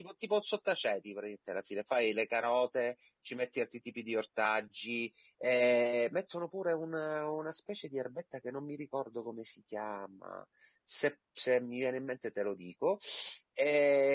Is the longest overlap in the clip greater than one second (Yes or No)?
No